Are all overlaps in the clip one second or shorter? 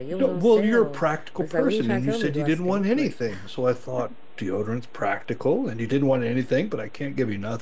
No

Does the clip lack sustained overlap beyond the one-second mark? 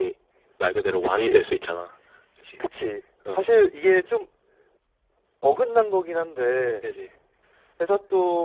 Yes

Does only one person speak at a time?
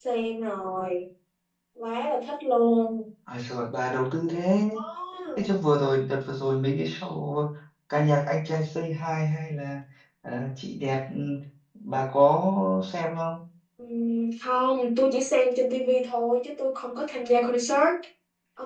Yes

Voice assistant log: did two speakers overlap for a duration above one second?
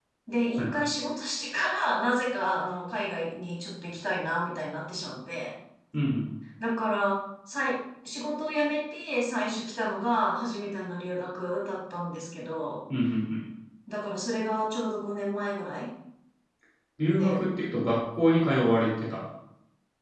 No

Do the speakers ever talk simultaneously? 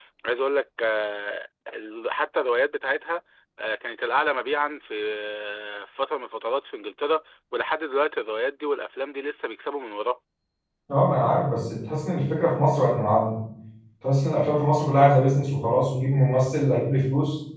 No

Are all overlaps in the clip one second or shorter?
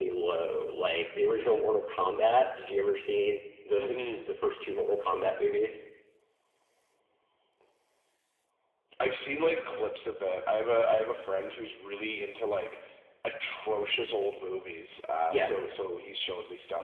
Yes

